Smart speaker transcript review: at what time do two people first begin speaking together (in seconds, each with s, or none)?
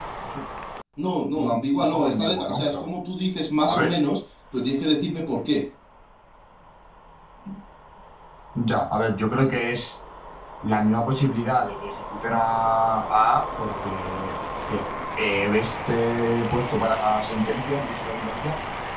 1.3 s